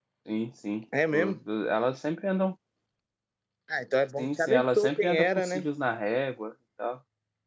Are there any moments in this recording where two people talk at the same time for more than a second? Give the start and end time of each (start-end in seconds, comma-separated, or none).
4.2-5.7